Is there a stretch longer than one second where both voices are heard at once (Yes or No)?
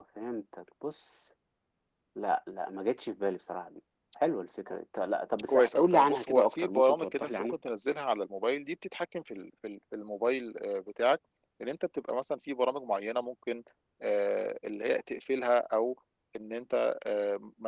Yes